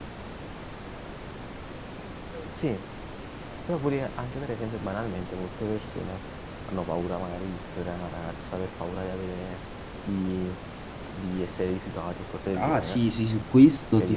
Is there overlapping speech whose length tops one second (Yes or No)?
No